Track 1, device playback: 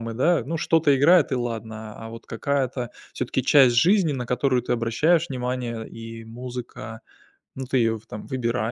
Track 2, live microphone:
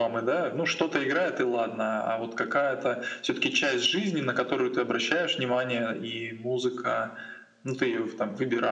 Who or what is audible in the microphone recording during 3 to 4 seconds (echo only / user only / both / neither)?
echo only